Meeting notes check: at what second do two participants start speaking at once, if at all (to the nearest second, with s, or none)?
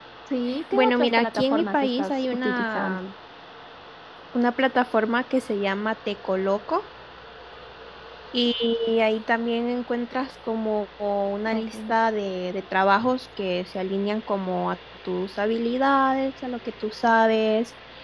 1 s